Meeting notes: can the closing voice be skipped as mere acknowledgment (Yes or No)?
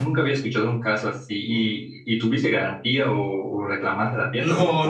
No